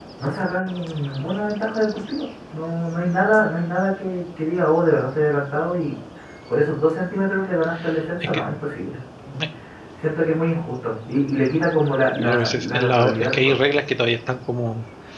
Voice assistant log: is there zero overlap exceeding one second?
No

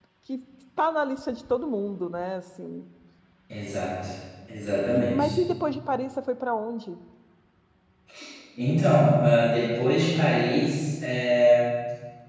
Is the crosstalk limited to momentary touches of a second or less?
Yes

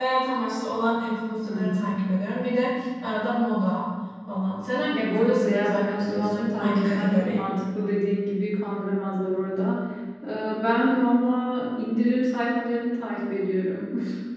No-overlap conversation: No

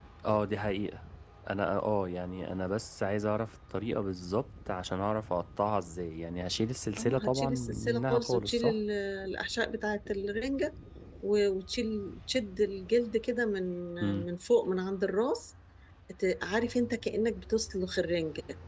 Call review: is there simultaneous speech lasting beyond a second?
Yes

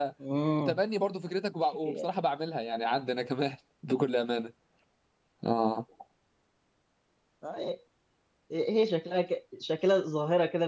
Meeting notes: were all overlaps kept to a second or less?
Yes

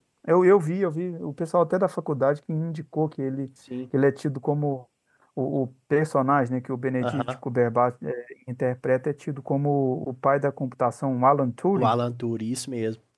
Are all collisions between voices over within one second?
Yes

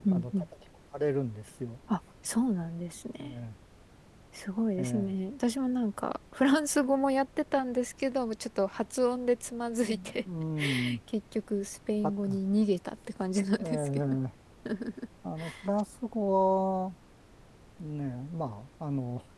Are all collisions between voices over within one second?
Yes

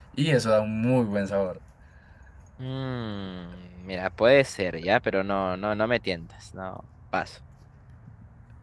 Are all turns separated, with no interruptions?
Yes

